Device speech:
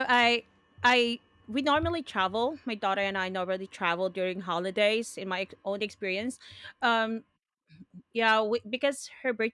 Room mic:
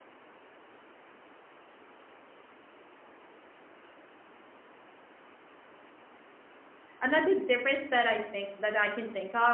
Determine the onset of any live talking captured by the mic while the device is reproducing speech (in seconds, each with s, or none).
7.0 s